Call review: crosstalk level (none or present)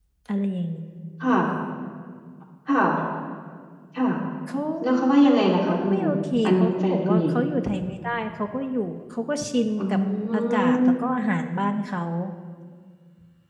present